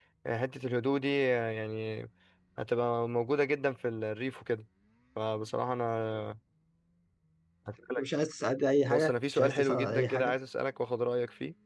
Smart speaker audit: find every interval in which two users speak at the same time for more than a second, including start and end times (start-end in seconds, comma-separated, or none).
8.9-10.3